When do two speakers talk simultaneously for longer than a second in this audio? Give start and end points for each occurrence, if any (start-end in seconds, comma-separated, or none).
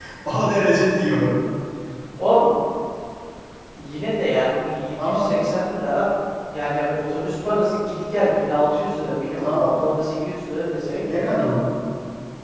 none